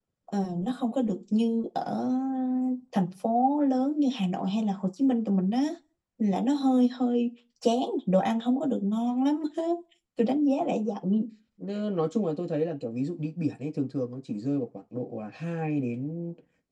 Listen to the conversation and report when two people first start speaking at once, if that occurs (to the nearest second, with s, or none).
none